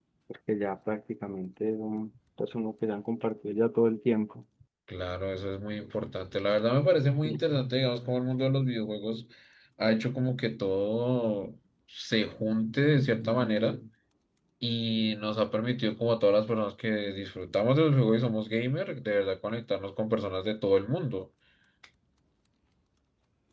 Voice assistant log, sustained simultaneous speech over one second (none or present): none